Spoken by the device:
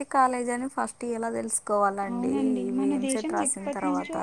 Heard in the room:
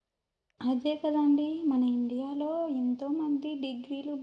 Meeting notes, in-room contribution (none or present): present